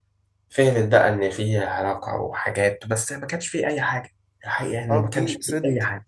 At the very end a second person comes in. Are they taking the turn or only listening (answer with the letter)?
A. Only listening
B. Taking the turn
B